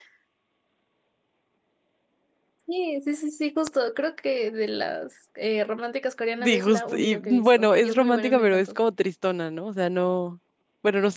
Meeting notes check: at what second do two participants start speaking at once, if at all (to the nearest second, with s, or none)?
6 s